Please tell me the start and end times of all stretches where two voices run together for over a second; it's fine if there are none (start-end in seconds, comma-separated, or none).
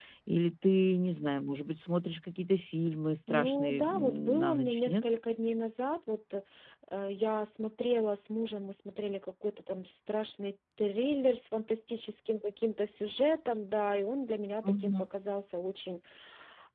3.3-5.0